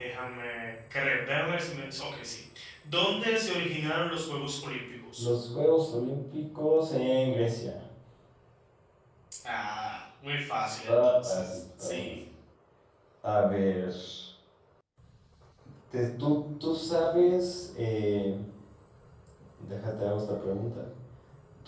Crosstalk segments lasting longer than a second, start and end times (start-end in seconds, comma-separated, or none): 10.9-12.1